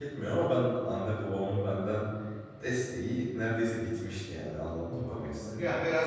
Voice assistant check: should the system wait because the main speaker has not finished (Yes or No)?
No